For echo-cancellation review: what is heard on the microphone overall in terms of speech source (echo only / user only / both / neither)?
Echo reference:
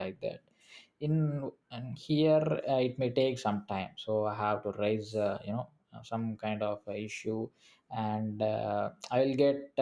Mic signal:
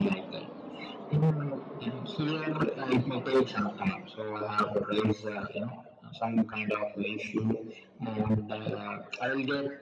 echo only